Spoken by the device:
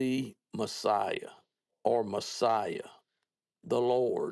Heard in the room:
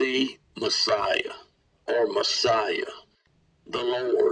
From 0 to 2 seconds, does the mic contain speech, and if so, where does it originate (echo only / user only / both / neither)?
echo only